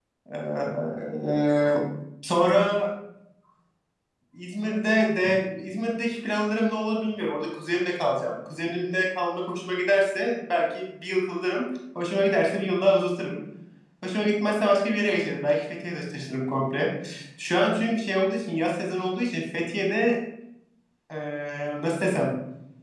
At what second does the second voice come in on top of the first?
none

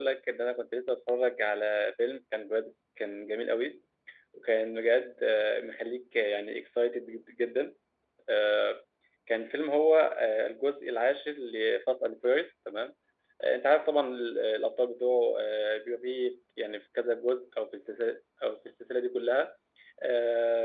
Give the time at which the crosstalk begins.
none

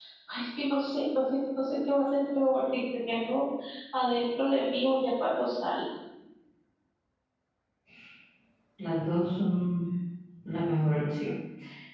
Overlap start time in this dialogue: none

